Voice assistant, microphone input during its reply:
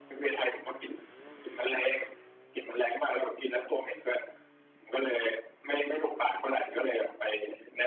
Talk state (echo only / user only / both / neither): echo only